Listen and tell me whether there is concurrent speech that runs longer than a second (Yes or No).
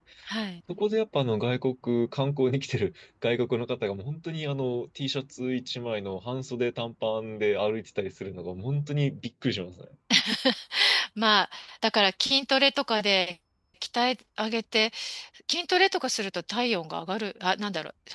No